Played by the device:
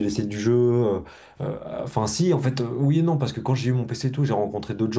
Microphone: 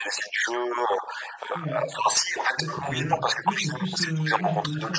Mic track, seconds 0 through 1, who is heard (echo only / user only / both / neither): echo only